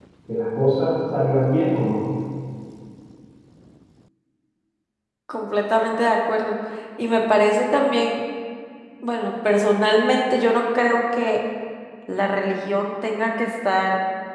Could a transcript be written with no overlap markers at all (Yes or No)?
Yes